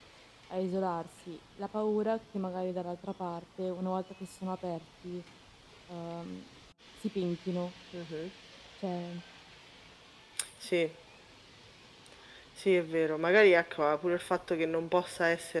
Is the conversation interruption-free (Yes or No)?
Yes